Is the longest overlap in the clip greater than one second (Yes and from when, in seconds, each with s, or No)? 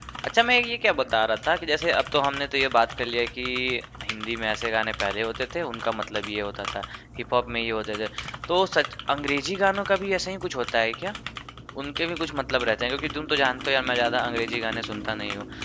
No